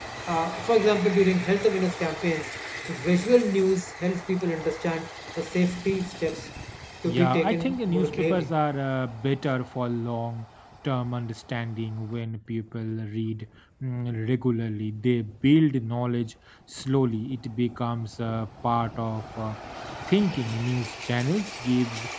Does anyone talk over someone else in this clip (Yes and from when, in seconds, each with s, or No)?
Yes, from 7.0 s